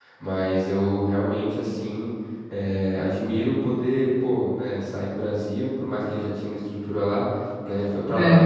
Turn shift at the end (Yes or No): No